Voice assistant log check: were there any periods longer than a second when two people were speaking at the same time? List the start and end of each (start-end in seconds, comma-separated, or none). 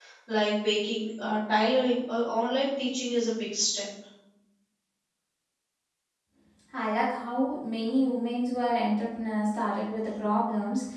none